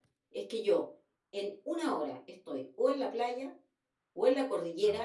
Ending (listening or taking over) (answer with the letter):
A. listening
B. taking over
A